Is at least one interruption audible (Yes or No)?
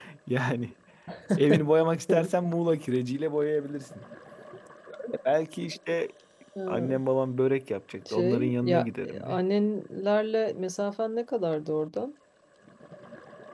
Yes